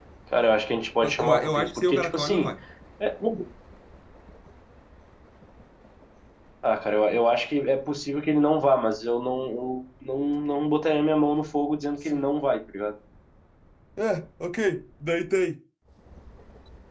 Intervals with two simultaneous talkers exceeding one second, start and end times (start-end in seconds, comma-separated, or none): 1.0-2.5